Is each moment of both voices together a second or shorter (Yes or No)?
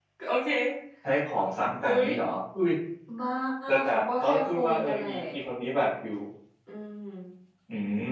No